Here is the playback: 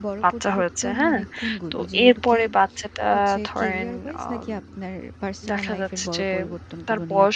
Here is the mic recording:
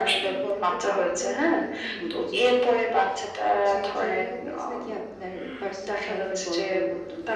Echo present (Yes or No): Yes